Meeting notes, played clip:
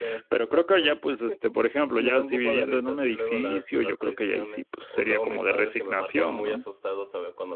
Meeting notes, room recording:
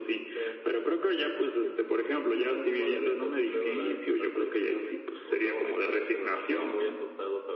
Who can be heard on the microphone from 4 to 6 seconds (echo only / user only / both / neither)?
echo only